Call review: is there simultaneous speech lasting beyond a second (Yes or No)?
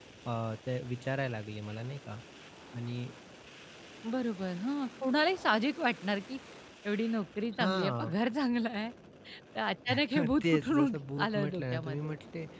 Yes